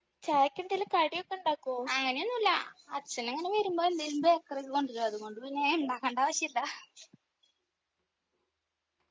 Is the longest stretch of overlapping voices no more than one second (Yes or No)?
Yes